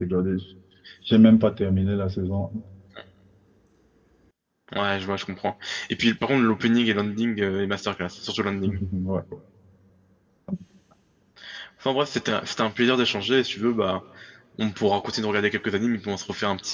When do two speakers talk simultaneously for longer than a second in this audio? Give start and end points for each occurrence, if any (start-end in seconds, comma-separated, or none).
none